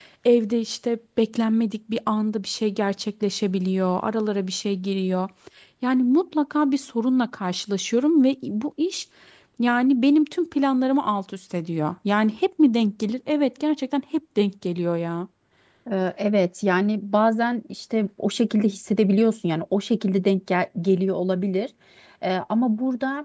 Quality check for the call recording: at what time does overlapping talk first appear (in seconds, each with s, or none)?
none